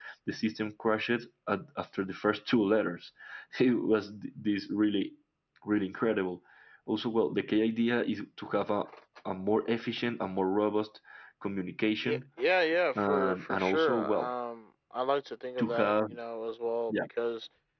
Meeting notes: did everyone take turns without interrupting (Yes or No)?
No